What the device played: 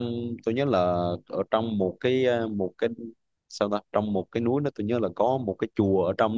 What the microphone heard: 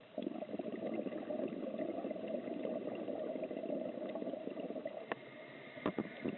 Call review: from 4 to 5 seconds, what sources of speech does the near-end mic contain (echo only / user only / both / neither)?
neither